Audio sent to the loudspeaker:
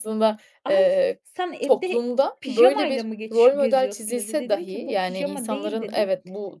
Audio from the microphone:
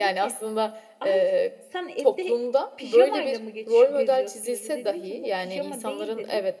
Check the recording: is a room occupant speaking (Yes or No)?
No